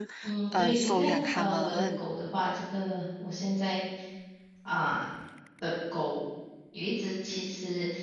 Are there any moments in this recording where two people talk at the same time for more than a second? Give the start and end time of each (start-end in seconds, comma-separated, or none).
0.6-2.0